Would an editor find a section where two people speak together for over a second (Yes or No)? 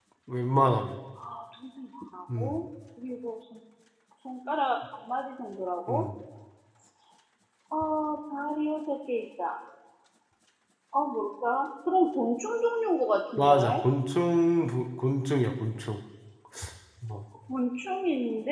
No